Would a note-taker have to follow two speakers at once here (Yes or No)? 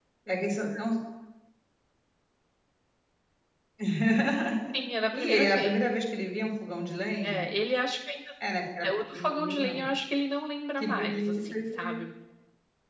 Yes